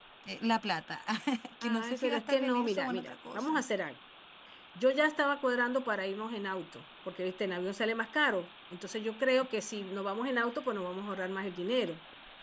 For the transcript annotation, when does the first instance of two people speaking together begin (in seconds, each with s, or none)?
1.6 s